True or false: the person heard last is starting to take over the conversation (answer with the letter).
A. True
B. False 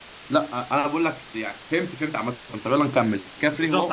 A